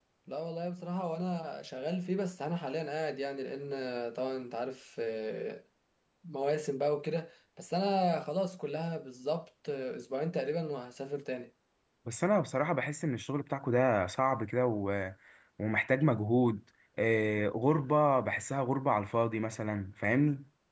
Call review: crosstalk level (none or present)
none